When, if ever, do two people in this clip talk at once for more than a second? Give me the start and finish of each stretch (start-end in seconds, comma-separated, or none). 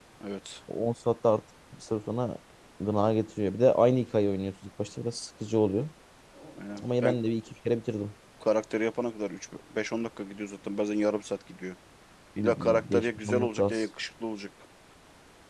12.4-13.8